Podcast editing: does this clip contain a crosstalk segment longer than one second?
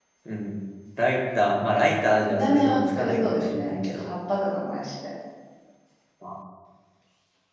Yes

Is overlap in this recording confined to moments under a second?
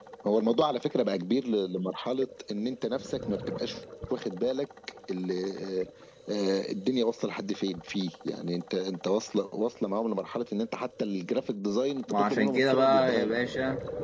No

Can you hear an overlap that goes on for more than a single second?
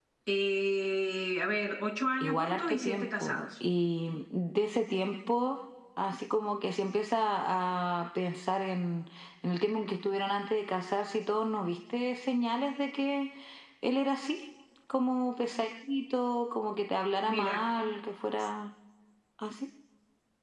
Yes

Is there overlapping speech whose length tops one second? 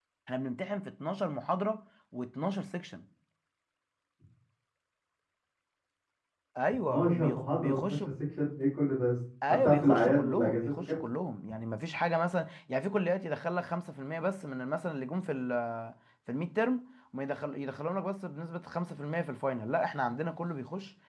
Yes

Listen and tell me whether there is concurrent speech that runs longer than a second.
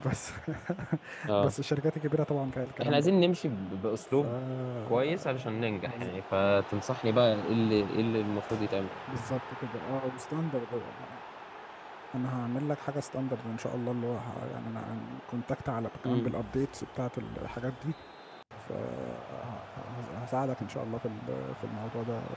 No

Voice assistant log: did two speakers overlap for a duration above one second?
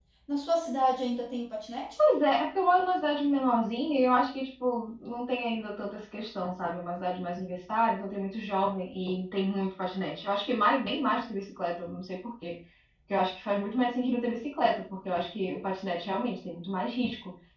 No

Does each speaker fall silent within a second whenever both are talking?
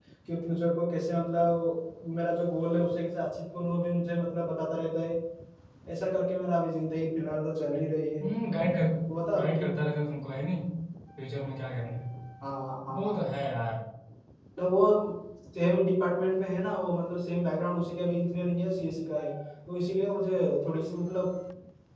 Yes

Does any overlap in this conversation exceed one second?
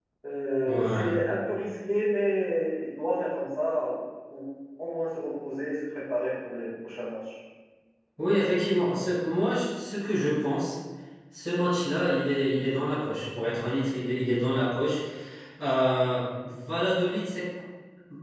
No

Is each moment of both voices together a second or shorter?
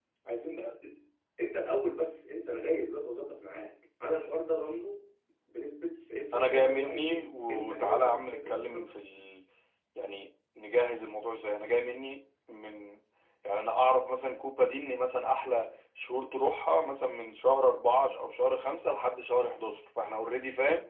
No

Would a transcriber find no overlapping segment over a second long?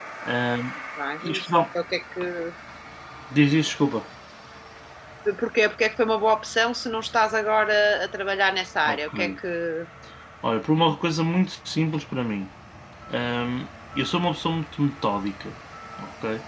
Yes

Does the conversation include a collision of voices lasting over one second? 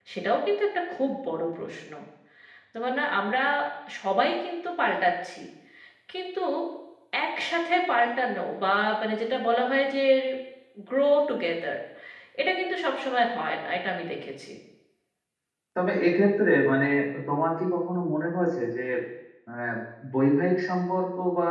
No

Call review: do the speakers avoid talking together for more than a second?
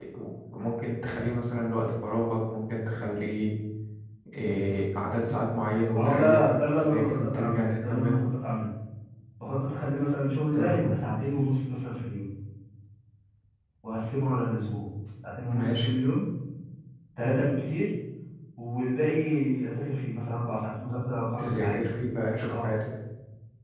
No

